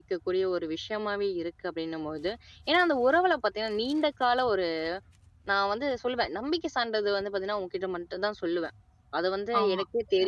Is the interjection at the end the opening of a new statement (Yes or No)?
No